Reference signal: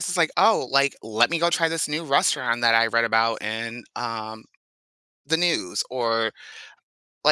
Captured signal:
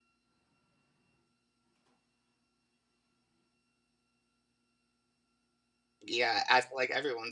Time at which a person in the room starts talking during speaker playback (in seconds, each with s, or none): 6.0 s